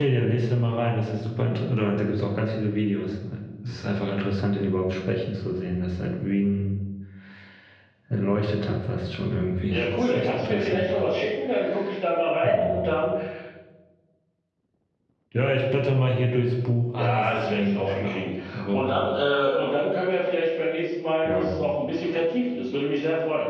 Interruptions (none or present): present